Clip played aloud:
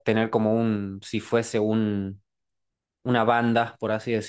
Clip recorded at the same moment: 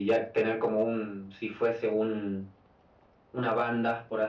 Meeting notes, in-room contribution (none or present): none